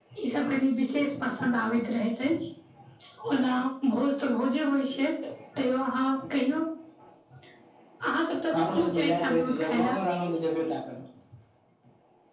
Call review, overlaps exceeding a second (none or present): present